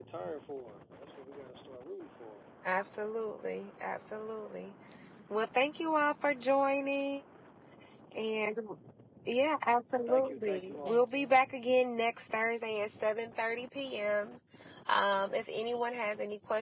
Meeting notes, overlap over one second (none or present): present